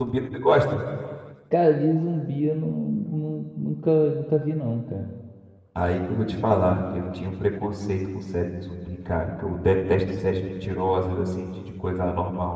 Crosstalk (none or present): none